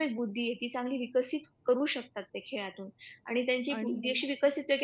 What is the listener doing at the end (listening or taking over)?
listening